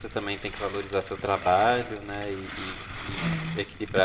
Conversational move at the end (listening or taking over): listening